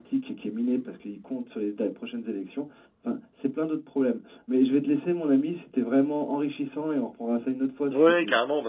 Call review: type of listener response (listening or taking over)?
taking over